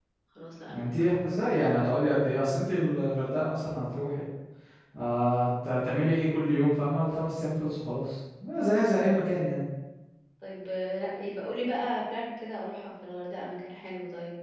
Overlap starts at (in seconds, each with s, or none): 0.7 s